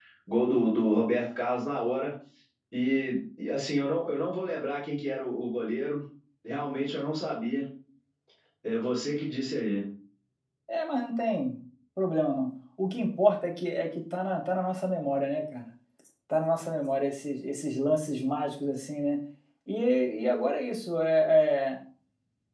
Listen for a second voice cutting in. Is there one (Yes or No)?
No